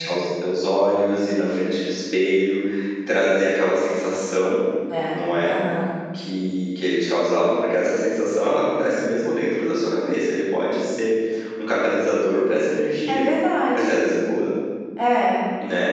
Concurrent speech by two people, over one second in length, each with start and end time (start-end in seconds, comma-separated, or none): none